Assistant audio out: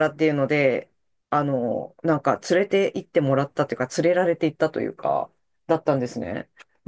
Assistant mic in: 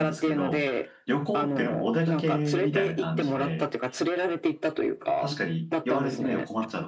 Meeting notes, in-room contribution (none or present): present